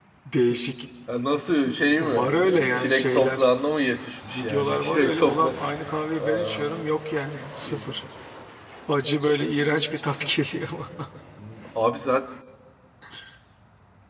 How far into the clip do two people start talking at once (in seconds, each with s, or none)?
2.0 s